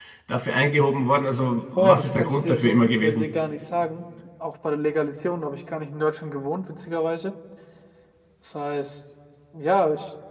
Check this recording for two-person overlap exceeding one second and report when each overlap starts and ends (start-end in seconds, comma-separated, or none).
1.8-3.3